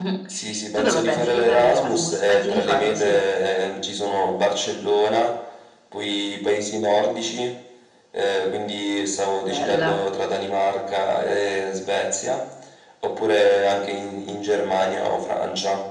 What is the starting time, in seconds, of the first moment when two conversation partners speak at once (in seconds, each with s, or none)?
0.8 s